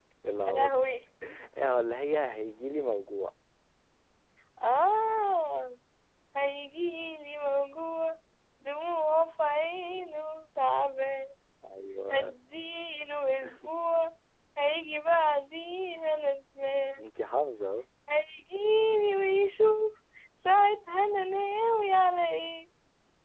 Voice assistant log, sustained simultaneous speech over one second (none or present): none